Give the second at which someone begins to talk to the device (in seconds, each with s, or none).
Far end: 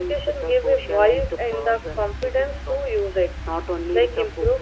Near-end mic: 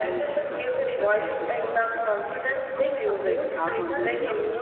2.8 s